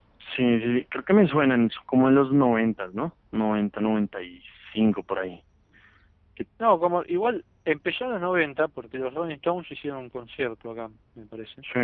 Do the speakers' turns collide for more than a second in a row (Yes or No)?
No